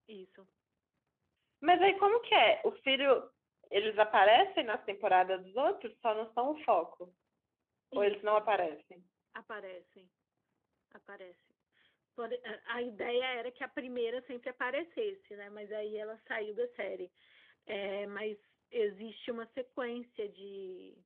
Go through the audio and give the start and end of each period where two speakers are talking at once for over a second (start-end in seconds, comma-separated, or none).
none